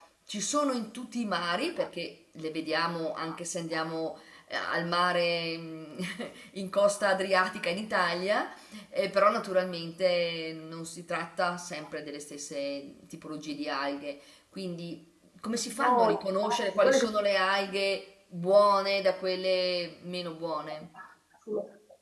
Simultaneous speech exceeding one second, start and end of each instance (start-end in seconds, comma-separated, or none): 15.7-17.0